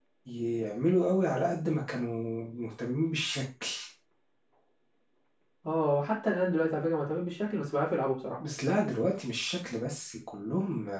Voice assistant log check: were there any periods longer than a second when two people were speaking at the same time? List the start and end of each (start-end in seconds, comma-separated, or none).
none